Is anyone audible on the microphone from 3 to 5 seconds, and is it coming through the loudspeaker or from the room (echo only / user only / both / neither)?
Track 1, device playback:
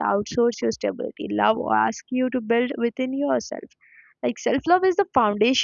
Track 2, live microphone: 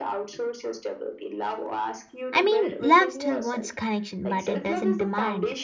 both